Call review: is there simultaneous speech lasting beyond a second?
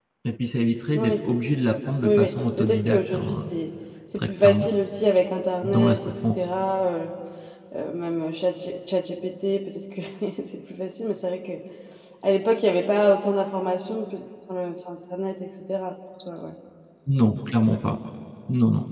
Yes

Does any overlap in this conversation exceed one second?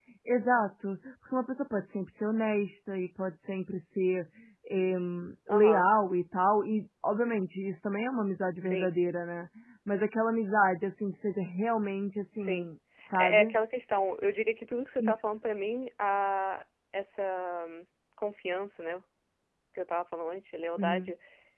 No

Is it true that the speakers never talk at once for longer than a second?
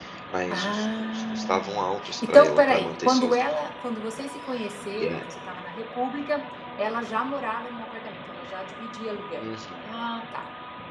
No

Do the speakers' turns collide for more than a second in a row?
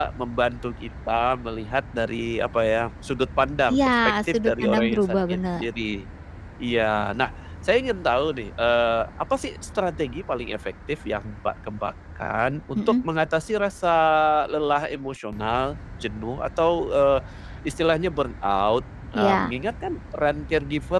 Yes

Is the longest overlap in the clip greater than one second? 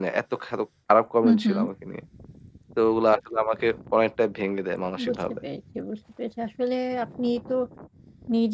No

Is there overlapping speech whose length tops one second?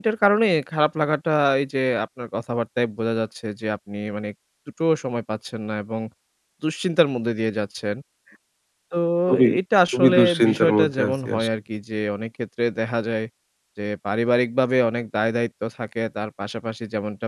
Yes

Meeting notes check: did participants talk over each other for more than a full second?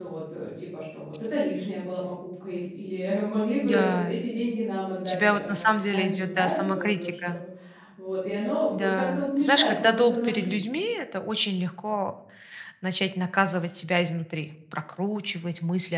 Yes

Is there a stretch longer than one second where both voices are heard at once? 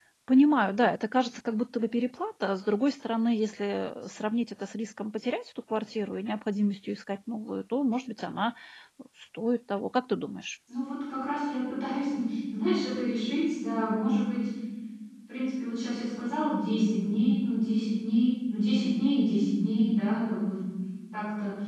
No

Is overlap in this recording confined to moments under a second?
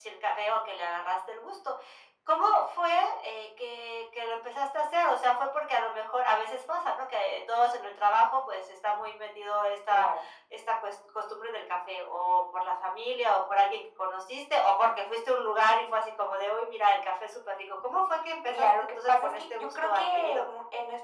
No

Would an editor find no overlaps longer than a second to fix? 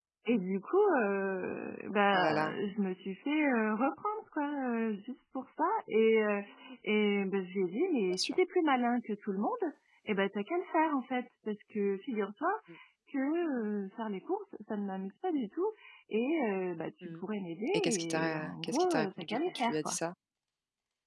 No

